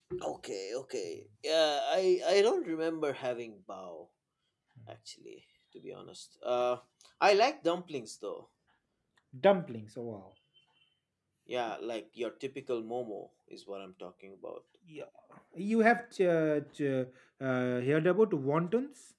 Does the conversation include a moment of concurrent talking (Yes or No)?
No